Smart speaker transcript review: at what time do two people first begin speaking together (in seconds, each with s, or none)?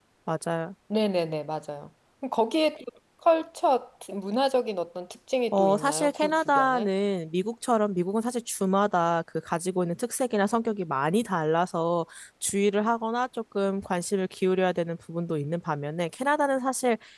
5.5 s